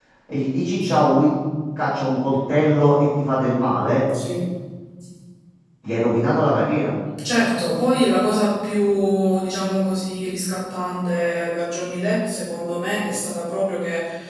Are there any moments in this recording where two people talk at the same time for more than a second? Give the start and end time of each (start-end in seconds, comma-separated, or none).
none